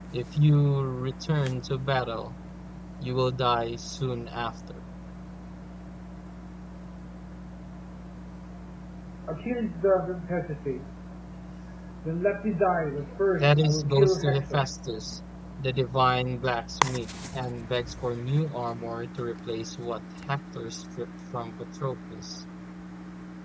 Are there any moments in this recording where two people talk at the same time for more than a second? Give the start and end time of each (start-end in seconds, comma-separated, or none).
13.4-14.6